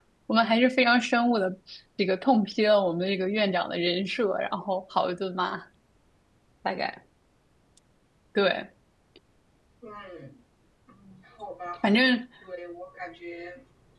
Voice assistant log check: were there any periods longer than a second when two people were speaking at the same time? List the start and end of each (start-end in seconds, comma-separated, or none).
none